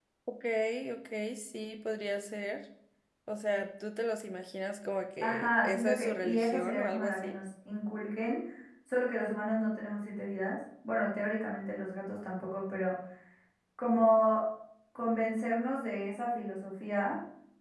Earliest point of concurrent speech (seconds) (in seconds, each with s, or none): 5.2 s